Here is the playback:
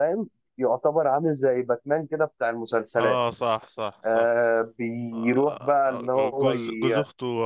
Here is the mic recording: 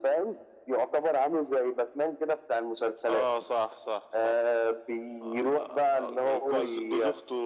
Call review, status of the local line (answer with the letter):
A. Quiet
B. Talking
A